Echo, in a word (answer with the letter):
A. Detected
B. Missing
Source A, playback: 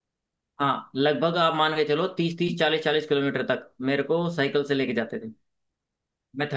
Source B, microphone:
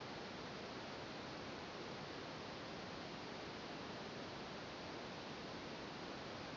B